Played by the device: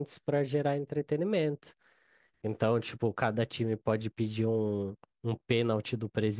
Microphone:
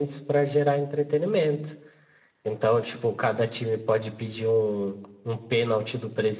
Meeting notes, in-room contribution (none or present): none